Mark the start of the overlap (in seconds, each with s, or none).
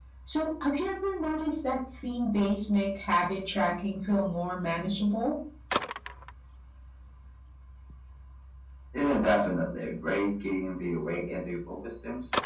none